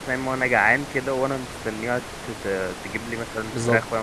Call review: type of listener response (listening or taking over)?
taking over